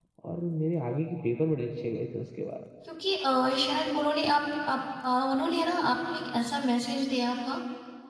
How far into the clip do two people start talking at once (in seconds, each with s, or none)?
none